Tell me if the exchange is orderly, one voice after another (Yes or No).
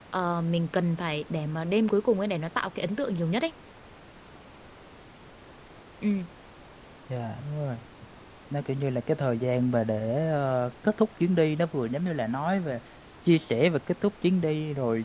Yes